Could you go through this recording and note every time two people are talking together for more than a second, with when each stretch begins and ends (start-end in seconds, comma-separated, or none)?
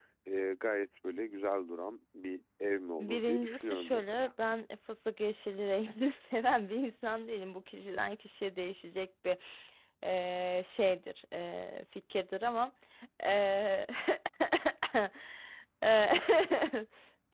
3.0-4.3